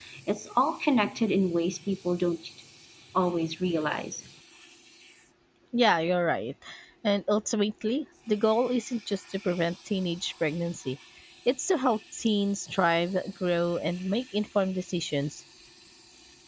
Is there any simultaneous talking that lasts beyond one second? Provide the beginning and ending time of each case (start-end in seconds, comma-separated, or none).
none